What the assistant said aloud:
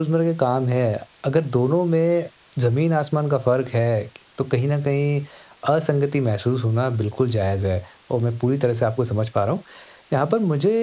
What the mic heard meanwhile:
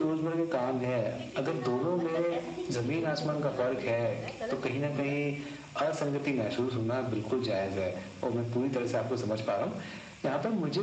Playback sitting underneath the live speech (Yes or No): No